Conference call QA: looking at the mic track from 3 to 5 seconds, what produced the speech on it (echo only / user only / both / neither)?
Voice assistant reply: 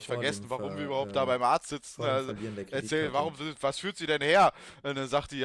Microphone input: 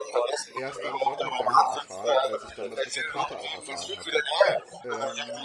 both